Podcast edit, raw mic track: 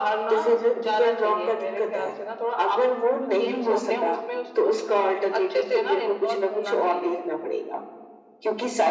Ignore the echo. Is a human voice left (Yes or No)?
No